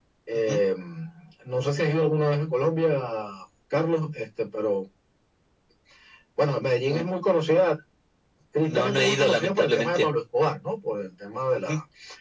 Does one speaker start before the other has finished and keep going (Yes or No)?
Yes